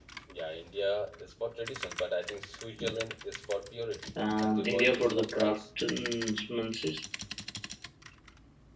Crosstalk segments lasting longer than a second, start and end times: 4.4-5.6

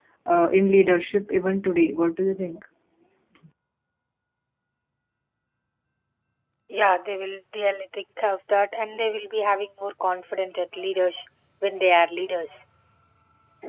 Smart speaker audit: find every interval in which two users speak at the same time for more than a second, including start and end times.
none

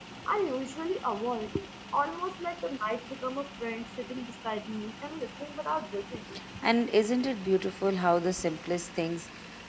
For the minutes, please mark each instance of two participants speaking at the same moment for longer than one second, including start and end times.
none

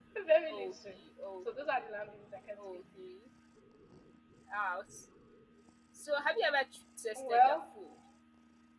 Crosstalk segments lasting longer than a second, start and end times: none

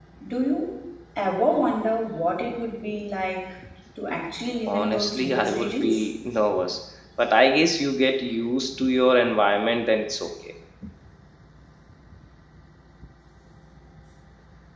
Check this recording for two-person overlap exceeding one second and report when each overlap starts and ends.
4.7-6.0

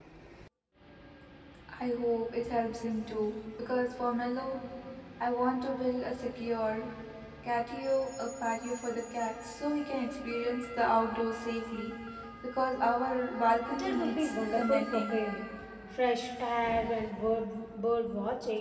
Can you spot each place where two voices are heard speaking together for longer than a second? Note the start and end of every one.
13.8-15.2

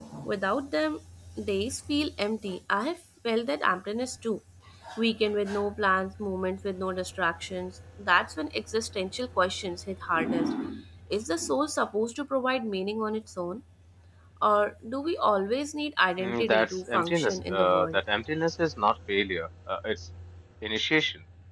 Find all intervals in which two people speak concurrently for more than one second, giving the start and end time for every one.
16.2-18.0

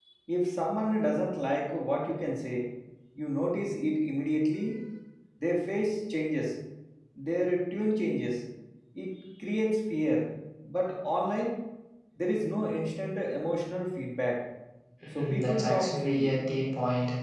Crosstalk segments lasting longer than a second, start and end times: 15.2-16.4

